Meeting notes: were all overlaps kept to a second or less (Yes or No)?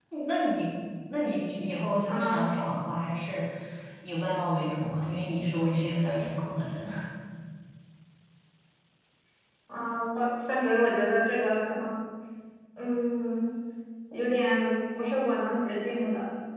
Yes